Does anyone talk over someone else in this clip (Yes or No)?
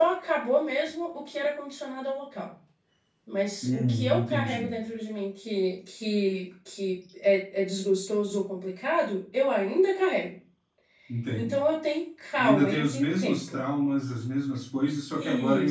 Yes